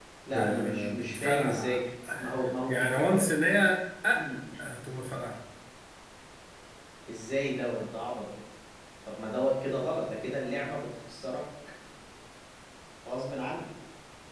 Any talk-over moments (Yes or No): Yes